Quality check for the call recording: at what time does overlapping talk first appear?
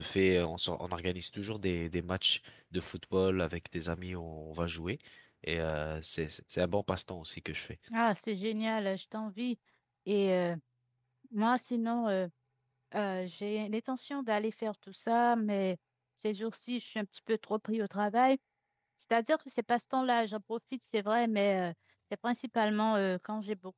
none

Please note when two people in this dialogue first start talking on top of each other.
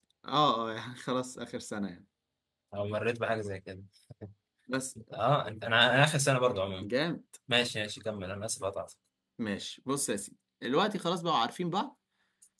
none

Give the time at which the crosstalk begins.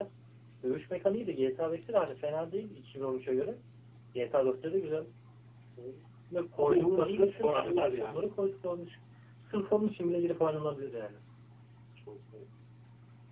6.6 s

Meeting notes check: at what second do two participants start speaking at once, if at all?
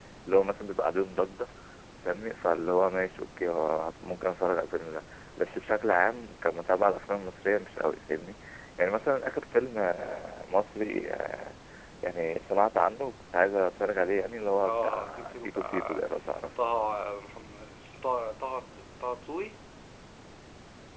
14.6 s

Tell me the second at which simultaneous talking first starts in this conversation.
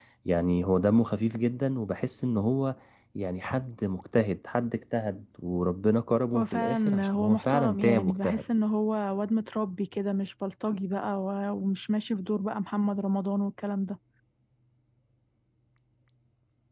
6.3 s

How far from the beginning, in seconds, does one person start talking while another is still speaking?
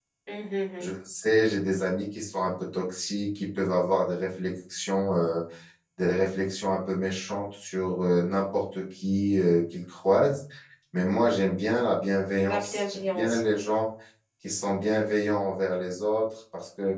12.4 s

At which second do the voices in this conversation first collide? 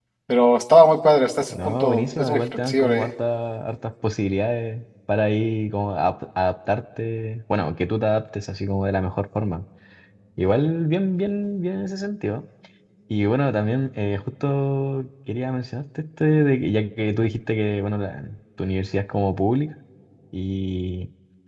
1.5 s

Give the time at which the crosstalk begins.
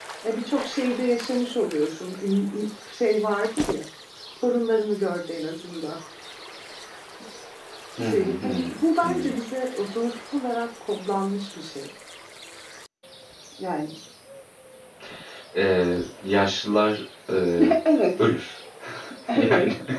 8.1 s

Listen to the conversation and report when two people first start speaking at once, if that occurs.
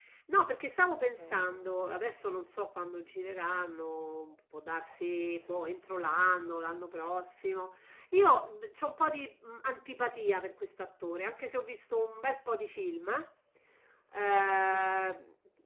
1.2 s

